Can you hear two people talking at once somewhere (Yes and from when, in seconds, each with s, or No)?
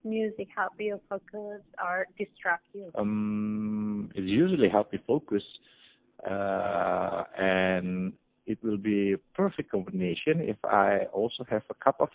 No